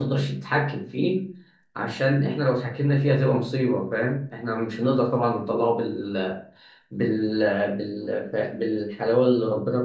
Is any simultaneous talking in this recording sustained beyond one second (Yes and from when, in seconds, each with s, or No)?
No